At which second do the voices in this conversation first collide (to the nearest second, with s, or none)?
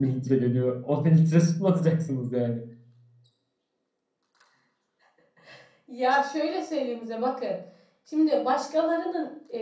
none